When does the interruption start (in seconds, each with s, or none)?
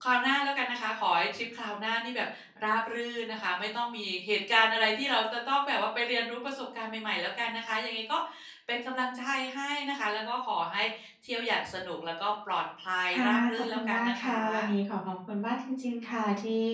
13.1 s